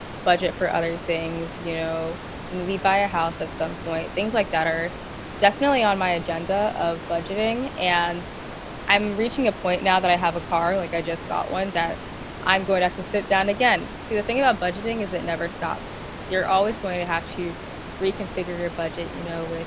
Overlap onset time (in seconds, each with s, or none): none